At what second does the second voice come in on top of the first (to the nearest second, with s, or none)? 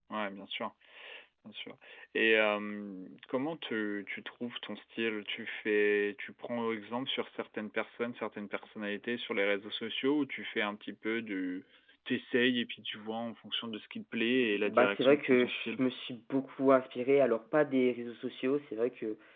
14 s